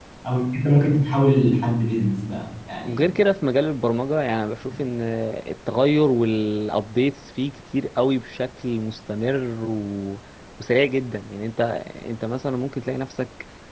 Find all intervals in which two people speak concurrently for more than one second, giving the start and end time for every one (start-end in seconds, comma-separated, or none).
none